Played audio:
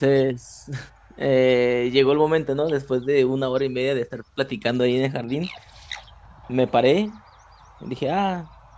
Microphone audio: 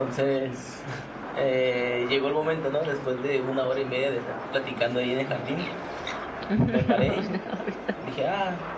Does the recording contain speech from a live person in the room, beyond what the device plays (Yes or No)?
Yes